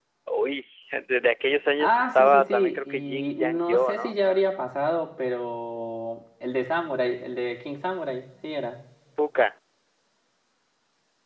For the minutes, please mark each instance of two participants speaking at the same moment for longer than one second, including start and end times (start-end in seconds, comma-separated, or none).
1.8-4.2